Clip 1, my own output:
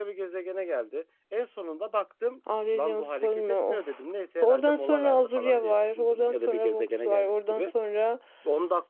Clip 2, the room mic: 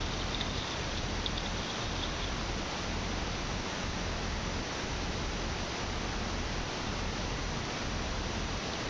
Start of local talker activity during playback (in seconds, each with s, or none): none